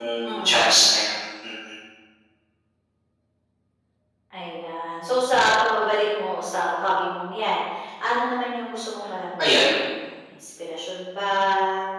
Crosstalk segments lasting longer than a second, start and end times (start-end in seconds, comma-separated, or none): none